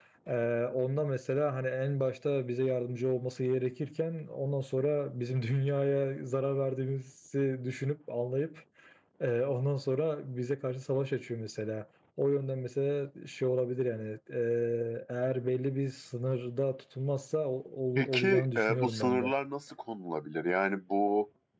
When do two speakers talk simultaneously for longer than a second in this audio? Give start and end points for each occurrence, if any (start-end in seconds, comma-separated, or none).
17.9-19.3